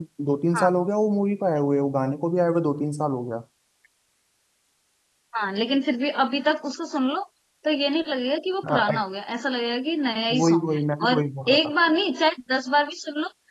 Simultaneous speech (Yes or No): Yes